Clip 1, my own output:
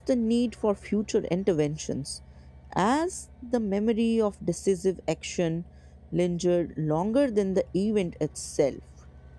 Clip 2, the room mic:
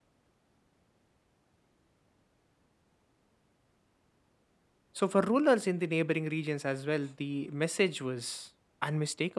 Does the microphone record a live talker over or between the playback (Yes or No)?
Yes